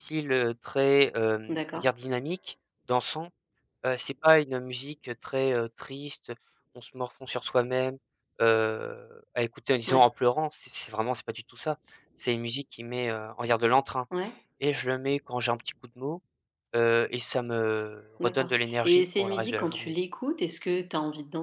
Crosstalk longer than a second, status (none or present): present